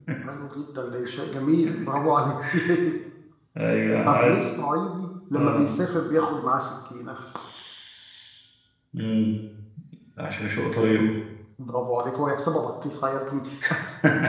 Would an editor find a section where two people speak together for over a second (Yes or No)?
No